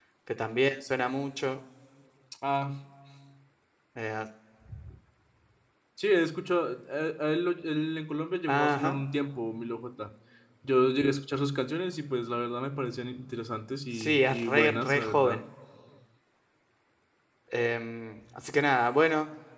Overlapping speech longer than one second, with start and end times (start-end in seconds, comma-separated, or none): 13.9-15.4